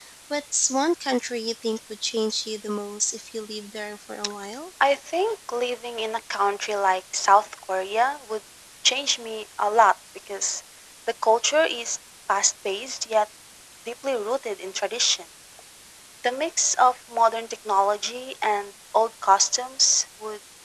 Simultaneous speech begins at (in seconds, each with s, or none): none